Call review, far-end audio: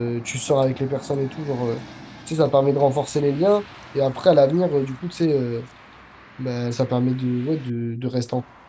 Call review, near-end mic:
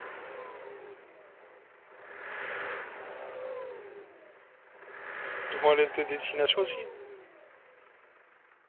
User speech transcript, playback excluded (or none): Ils vont à l'est de destination aussi?